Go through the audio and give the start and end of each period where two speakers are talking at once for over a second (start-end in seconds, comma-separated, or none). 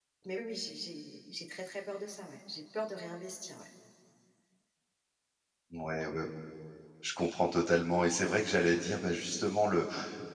none